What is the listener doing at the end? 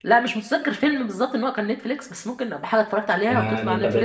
taking over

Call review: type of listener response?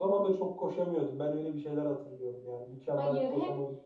taking over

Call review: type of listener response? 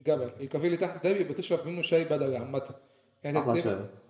listening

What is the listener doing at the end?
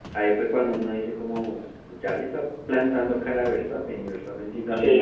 taking over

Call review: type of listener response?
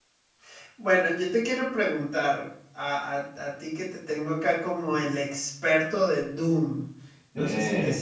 listening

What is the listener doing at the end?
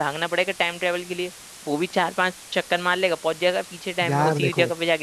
taking over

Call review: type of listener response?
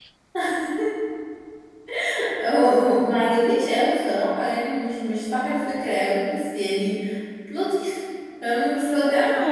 taking over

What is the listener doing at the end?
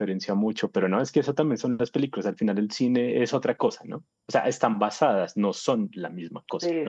taking over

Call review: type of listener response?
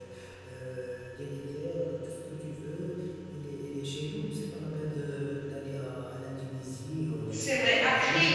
taking over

